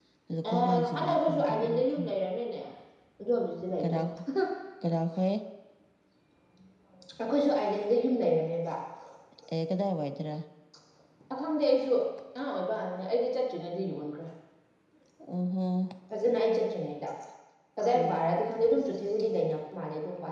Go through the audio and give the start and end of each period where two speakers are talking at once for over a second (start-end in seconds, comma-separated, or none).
0.5-2.1